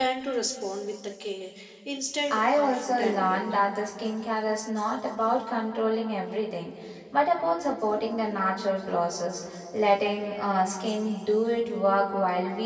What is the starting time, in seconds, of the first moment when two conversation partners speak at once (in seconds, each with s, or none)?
2.3 s